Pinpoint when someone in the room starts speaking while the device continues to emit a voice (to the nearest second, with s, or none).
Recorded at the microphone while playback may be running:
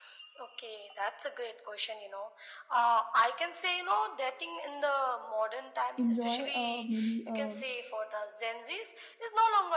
6 s